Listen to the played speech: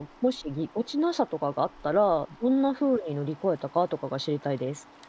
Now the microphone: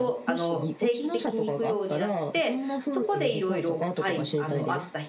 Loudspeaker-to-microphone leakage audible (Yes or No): Yes